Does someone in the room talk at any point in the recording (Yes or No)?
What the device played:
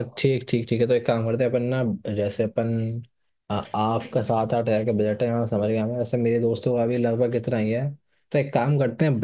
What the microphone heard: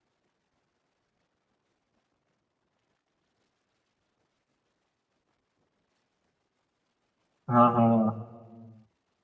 Yes